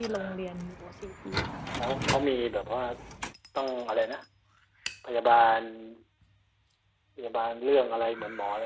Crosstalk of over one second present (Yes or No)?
No